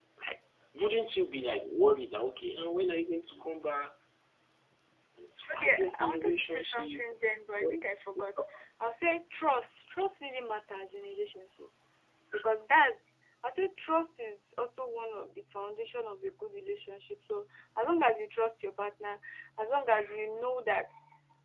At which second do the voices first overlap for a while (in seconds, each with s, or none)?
5.5 s